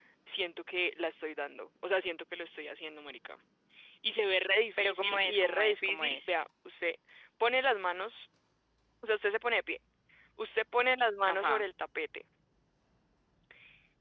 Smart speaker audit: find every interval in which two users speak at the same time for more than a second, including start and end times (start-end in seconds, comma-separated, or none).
4.8-6.3